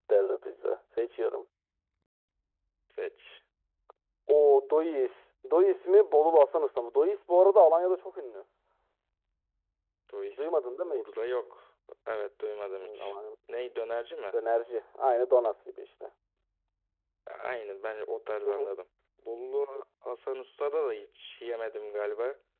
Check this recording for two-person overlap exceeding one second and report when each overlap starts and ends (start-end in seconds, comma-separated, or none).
none